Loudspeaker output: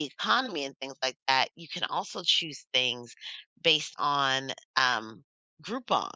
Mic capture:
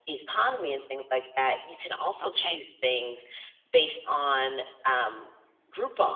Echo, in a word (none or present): present